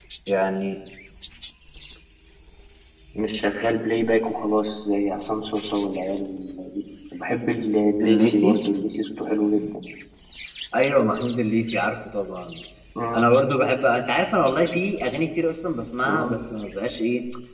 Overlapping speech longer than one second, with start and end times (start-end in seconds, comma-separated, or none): none